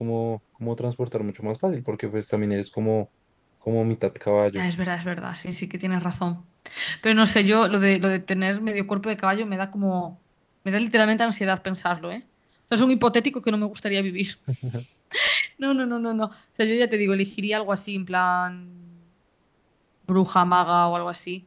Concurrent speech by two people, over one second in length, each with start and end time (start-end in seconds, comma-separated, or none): none